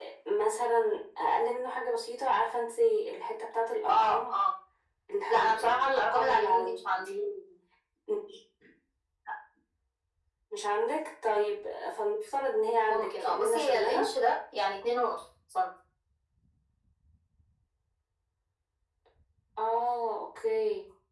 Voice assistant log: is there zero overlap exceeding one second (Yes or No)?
No